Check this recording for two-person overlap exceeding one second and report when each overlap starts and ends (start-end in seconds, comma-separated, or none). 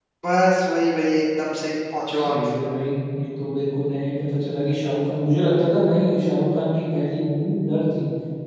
none